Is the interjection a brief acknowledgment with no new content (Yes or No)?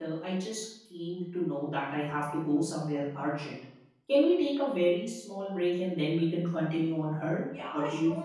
No